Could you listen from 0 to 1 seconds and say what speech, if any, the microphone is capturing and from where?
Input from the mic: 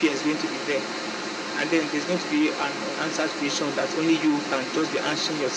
echo only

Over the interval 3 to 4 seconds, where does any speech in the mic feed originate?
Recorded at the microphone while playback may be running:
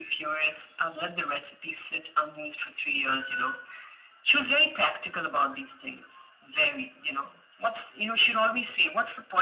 echo only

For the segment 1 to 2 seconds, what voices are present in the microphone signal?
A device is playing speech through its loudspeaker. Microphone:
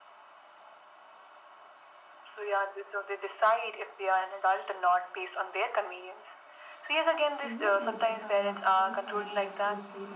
neither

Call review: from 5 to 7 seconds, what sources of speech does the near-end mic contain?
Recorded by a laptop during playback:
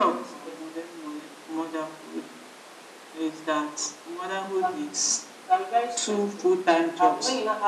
echo only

